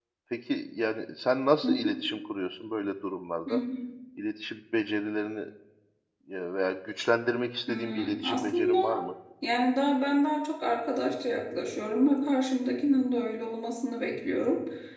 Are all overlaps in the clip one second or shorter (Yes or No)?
No